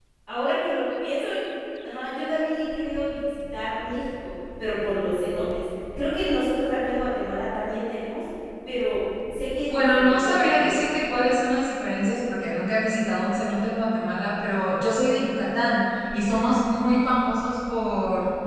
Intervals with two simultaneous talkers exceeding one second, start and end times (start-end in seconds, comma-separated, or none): 9.7-11.0